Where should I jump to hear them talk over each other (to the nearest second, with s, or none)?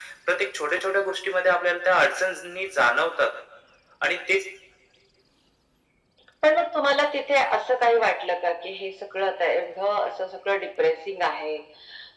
none